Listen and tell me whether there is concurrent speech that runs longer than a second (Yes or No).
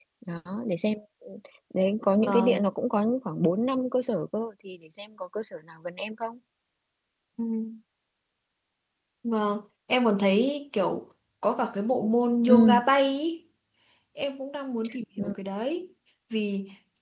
No